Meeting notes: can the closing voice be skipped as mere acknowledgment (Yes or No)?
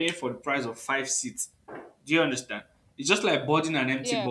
Yes